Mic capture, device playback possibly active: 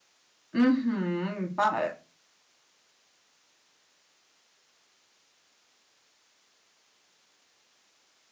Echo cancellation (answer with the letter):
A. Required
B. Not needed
B